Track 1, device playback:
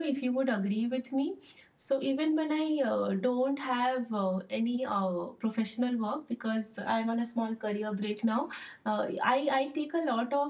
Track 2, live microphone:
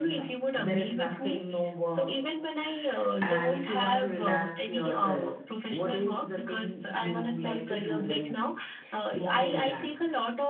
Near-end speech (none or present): present